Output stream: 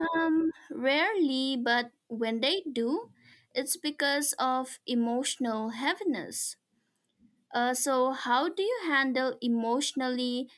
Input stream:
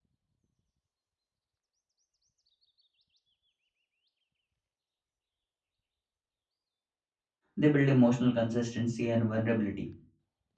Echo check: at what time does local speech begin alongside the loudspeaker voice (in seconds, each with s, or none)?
7.6 s